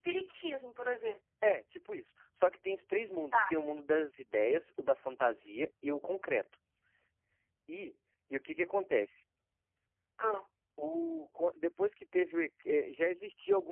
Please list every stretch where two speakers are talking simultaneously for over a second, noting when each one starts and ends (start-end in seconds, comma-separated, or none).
none